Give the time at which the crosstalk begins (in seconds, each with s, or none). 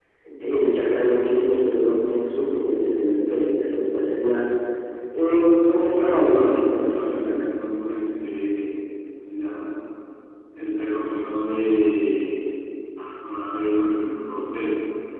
5.8 s